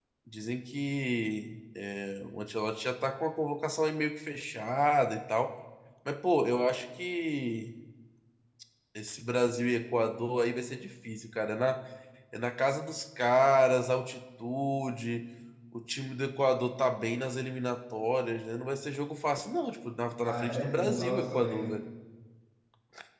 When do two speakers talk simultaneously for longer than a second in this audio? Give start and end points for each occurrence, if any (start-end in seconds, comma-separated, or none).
20.2-21.7